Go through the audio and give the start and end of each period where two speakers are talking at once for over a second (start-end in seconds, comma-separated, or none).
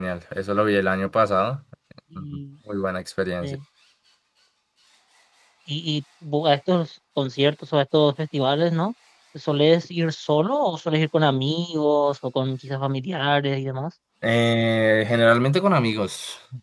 none